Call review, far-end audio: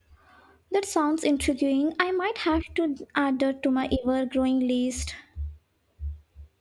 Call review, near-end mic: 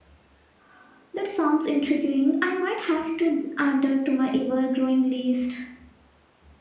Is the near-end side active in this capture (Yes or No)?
No